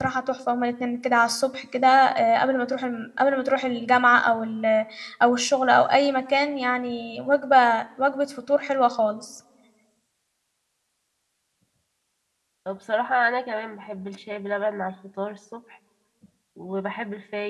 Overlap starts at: none

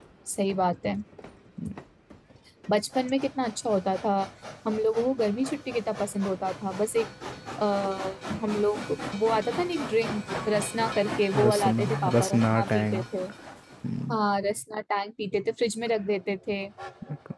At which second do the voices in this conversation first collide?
11.3 s

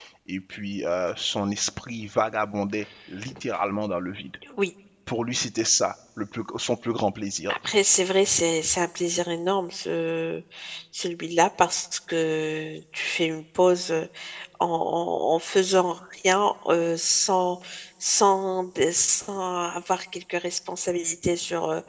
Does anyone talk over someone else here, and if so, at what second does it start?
none

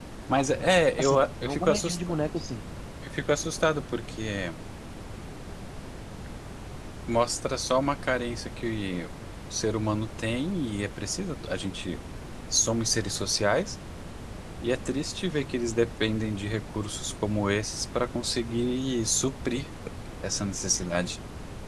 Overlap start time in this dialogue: 0.6 s

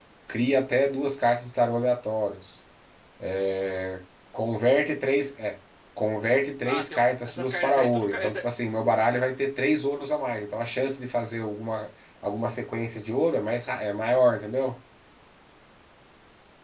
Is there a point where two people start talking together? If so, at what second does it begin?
6.7 s

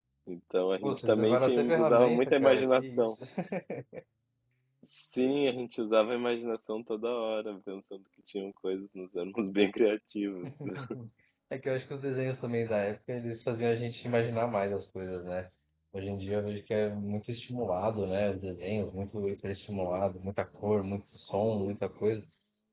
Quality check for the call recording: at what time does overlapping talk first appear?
0.8 s

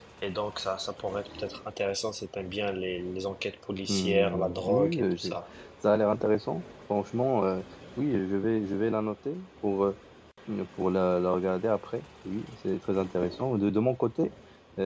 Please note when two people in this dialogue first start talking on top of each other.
3.8 s

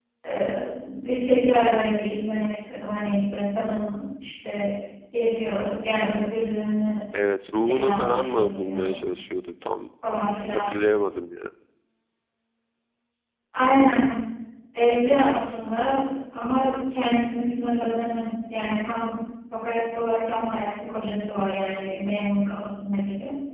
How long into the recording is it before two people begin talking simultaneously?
7.6 s

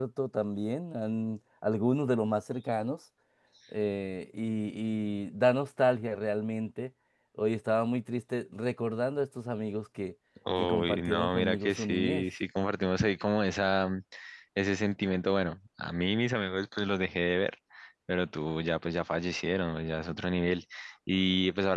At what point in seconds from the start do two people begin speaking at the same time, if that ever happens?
10.5 s

